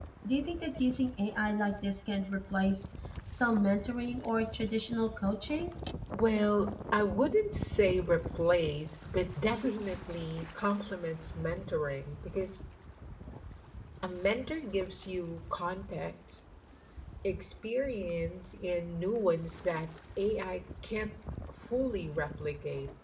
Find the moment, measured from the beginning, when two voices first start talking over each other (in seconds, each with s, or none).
none